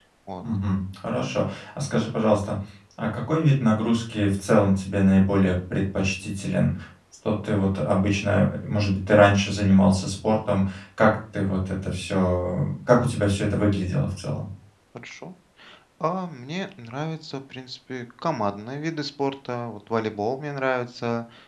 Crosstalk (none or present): none